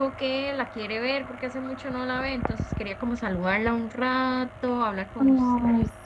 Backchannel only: No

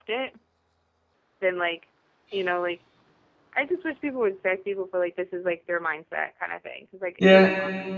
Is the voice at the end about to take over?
Yes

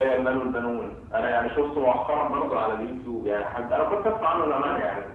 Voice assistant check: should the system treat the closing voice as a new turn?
No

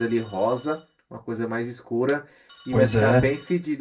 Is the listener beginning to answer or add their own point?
No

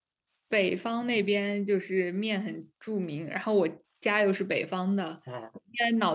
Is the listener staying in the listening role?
Yes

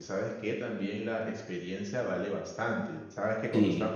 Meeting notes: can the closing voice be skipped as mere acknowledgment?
Yes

